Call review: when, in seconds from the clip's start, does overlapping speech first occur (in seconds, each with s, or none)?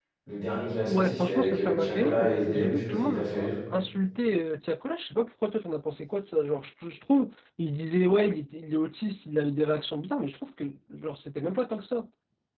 0.8 s